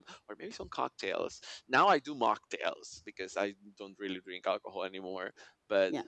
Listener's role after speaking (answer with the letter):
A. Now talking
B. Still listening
B